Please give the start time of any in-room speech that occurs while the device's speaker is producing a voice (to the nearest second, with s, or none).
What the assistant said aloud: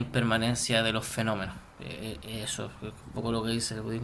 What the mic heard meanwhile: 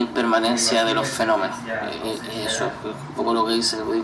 0 s